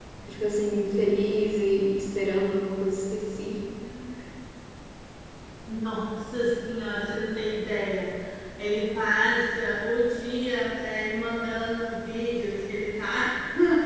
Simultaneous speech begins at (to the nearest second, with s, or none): none